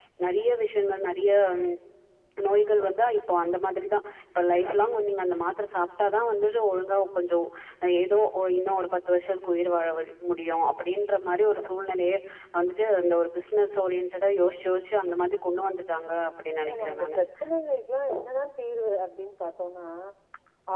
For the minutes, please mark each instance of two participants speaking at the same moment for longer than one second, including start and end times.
none

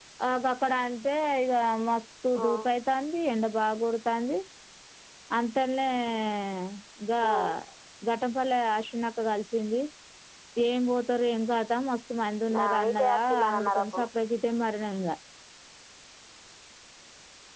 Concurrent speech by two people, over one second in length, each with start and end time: 12.5-14.1

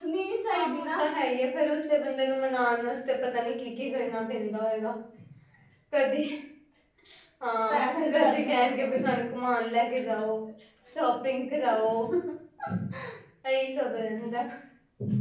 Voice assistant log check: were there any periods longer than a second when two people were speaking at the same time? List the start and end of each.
7.7-8.9

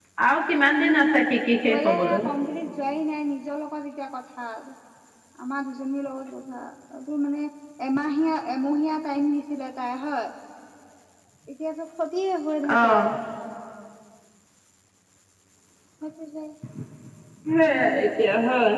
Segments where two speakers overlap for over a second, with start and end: 0.8-2.2

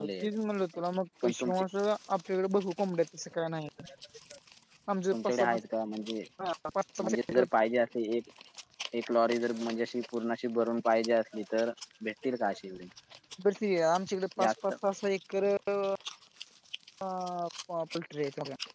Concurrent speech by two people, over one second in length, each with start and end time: none

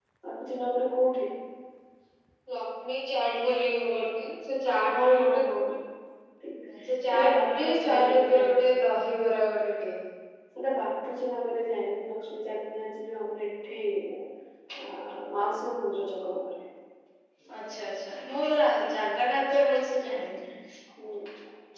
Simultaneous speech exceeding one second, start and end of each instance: 7.1-8.6

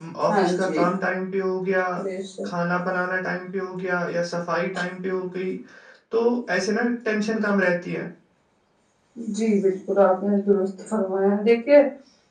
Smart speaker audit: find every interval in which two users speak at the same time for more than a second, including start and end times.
none

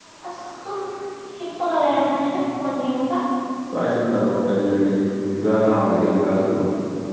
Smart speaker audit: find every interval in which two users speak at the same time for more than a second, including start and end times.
none

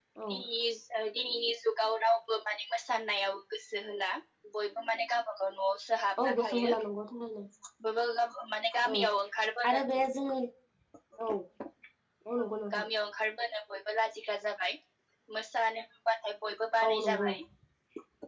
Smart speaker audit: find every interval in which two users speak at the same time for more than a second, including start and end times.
none

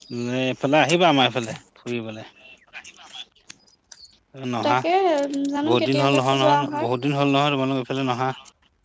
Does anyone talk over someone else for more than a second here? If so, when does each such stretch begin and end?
5.7-6.9

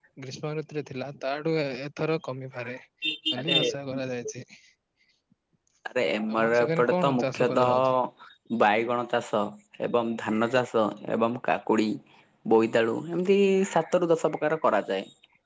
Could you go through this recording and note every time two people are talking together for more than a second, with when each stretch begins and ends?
6.3-7.7

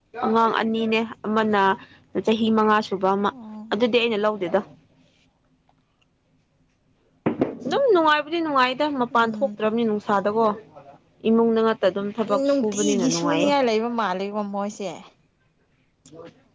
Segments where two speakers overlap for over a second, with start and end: 12.3-13.5

